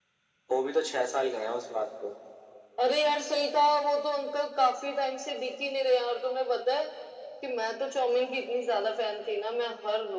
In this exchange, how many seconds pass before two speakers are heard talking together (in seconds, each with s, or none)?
none